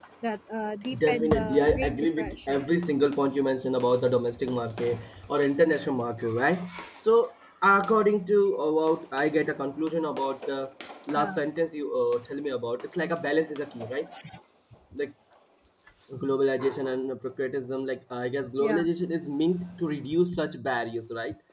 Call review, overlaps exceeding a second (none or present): present